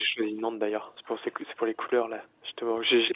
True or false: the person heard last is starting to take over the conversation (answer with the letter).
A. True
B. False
B